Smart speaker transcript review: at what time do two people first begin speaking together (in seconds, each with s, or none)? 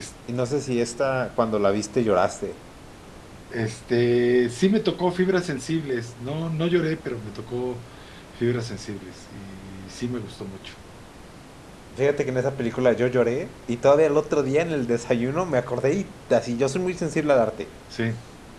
none